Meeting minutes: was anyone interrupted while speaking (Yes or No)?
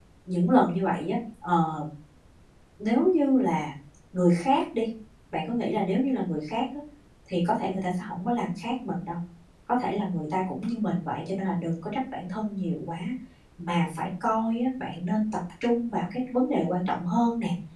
No